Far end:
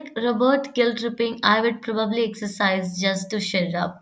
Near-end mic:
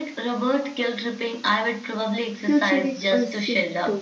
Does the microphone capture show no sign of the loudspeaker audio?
No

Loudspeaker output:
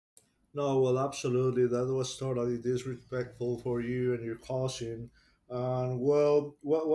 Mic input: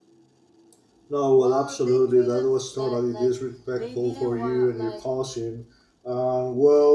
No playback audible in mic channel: No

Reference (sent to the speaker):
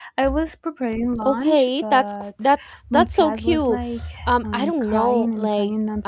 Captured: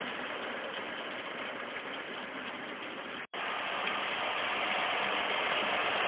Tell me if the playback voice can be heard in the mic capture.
No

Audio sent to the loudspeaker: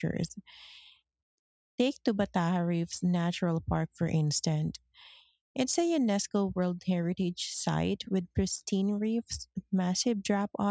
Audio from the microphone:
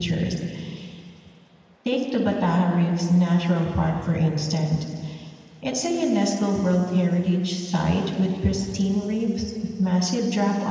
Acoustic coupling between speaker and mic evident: Yes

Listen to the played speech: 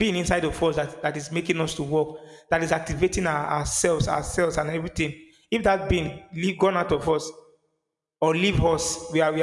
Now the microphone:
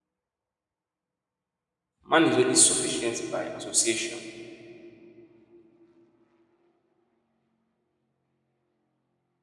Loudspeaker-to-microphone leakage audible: No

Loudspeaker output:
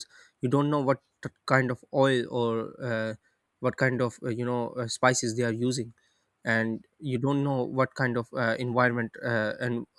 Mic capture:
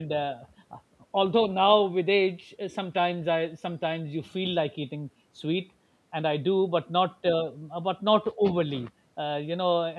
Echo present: No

